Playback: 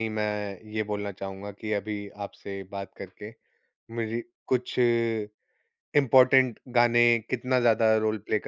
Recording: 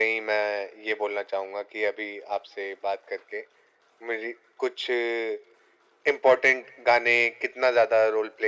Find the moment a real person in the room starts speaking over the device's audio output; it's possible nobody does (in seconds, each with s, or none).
none